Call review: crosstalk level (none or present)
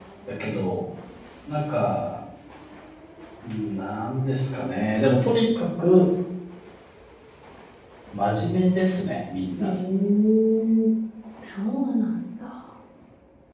none